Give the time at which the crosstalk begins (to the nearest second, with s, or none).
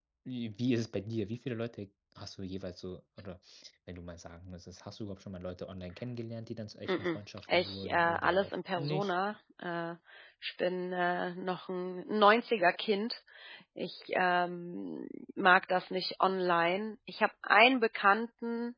7 s